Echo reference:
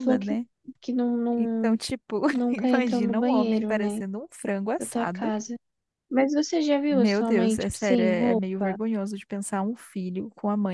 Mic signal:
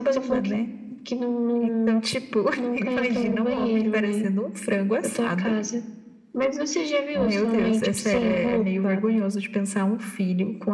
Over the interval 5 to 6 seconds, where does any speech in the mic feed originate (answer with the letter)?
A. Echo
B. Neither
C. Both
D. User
A